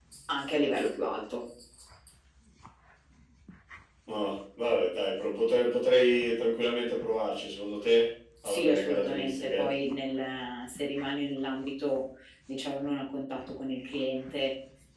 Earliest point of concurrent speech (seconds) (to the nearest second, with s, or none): 8 s